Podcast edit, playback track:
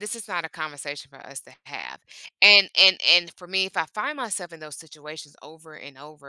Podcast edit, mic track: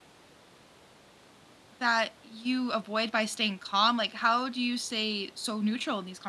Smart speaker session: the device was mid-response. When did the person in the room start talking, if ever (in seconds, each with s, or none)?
1.8 s